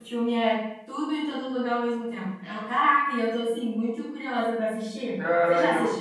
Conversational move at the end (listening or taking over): taking over